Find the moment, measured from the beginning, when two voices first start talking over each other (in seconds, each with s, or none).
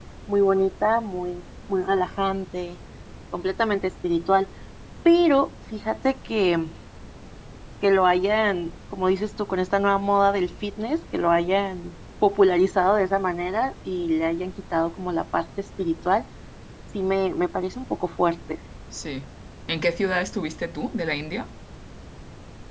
none